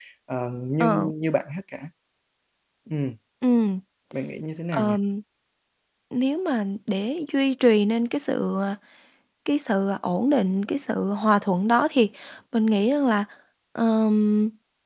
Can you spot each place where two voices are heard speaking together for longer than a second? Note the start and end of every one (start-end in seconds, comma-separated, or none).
none